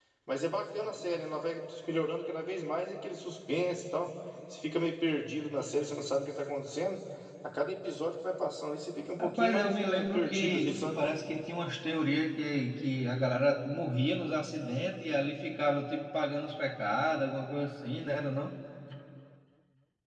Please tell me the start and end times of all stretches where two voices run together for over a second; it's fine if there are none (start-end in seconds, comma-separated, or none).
9.2-11.0